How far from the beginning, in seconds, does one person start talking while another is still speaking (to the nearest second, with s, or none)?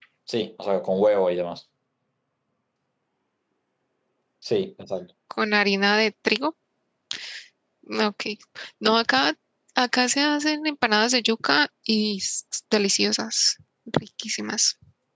none